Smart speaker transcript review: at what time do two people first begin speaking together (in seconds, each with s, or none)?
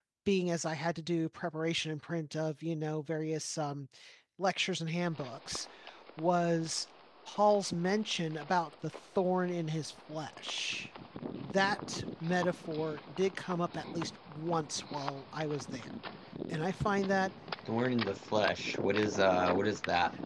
none